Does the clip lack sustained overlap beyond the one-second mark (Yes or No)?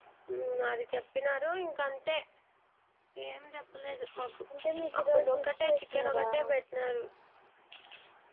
No